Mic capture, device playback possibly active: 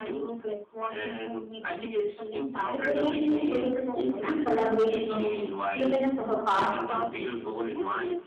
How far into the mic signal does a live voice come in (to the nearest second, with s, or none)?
3 s